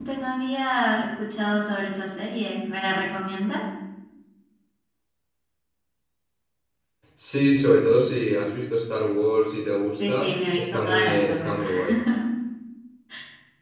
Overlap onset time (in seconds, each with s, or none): 9.9 s